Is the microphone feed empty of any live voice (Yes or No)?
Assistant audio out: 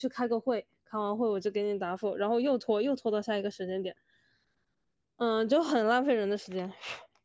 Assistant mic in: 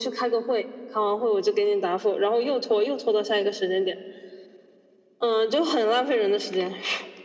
Yes